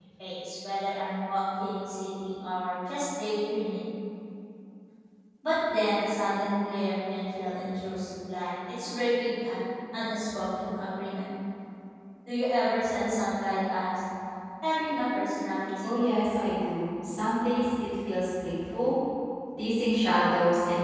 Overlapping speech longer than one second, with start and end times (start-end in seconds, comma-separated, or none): none